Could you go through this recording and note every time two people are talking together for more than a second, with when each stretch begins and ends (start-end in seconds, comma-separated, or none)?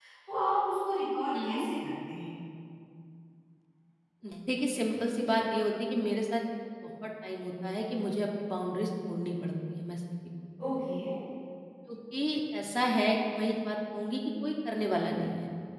none